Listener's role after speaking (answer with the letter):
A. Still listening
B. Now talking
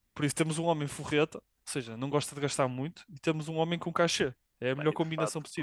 B